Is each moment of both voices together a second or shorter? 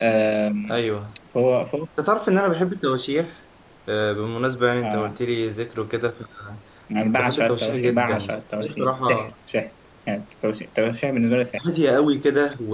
No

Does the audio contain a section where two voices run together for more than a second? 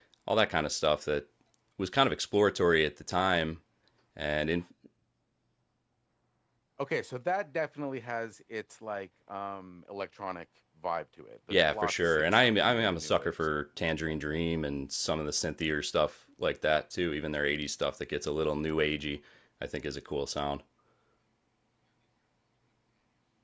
Yes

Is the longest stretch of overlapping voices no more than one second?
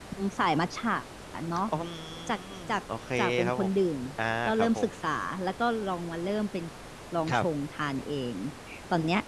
Yes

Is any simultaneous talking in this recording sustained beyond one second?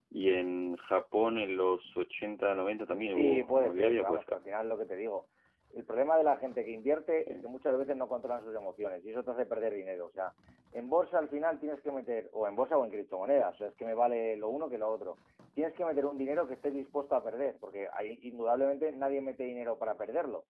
Yes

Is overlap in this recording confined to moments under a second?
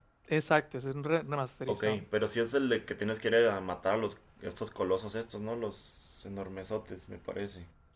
Yes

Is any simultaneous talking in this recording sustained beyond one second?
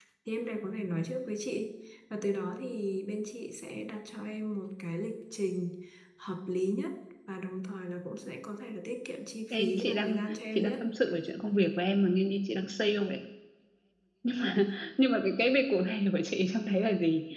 Yes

